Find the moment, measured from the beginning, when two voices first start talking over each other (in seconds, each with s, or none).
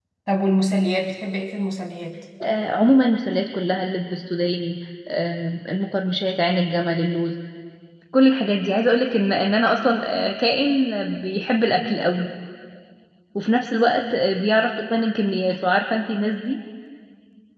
none